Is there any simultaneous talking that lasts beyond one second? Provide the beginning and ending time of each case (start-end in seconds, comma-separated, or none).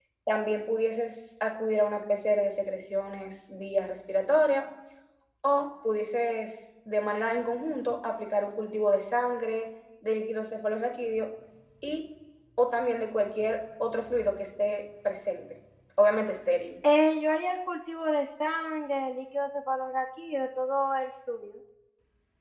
none